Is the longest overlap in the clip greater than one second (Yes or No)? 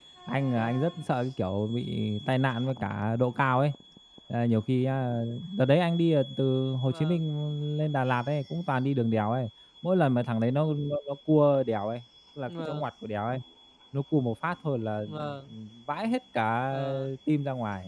No